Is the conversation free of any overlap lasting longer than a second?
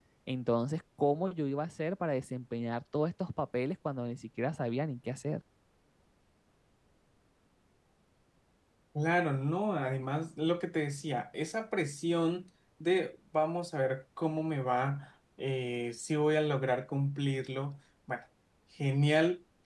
Yes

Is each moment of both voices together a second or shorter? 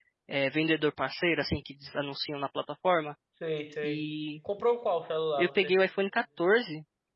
Yes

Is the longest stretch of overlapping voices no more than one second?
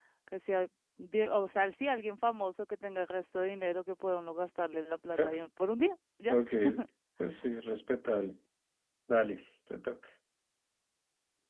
Yes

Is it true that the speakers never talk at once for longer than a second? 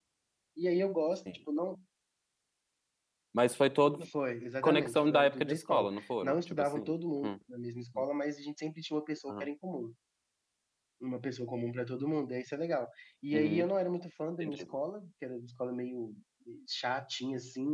No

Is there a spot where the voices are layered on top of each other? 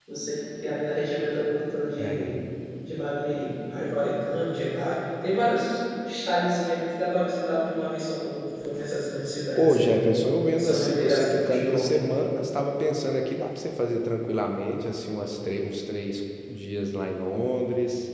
Yes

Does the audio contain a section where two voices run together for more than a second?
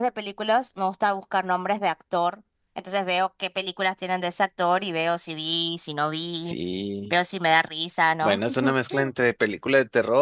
No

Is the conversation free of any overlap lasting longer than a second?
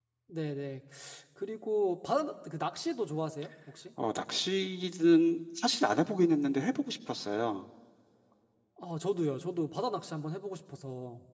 Yes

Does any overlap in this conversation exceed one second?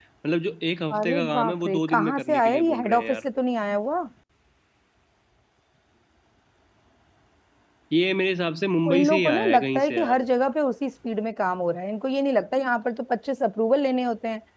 Yes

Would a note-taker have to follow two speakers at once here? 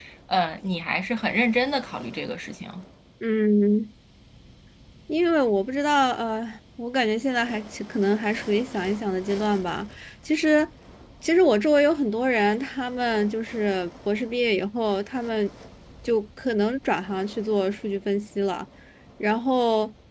No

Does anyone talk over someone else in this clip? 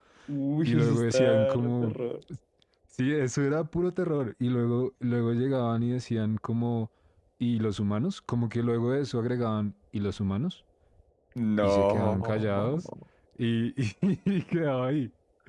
Yes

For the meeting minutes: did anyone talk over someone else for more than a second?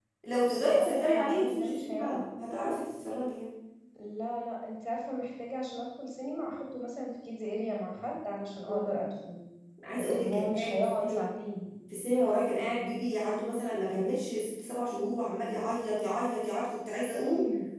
Yes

